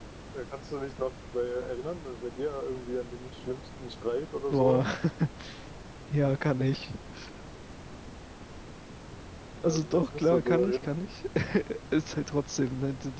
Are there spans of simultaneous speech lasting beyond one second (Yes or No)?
Yes